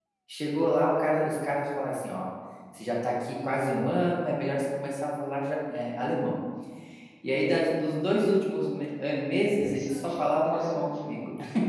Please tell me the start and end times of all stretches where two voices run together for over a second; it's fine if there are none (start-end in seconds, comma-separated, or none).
9.6-11.1